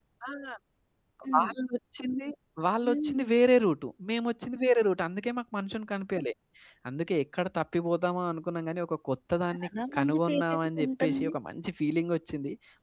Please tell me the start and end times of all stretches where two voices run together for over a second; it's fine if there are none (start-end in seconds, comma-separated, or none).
9.5-11.3